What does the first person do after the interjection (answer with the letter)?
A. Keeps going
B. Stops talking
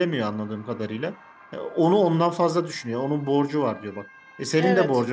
A